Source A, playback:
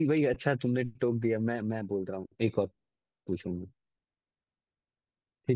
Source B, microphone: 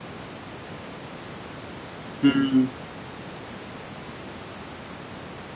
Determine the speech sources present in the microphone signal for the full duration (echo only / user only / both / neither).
user only